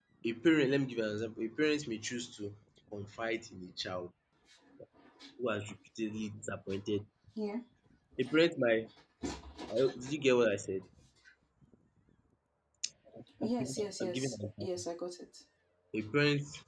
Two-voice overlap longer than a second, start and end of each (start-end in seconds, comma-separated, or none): 13.4-14.8